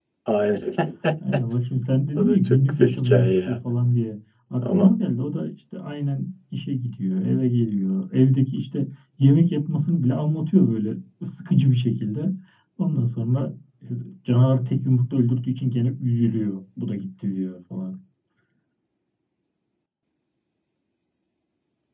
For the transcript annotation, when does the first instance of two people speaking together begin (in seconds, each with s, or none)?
2.2 s